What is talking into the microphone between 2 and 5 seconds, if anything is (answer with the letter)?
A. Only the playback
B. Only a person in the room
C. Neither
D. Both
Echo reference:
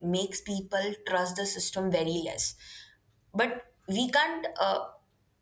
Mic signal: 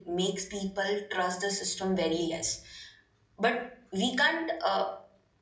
A